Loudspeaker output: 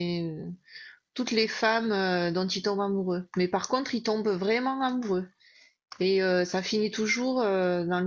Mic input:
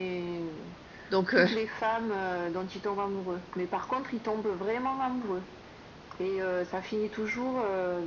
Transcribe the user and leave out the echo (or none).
Donc, euh,